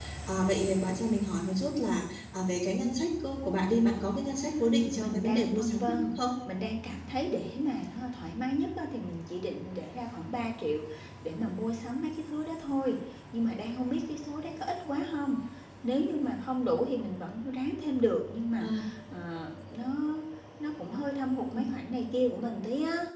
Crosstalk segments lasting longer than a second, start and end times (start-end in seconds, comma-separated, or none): 5.0-6.2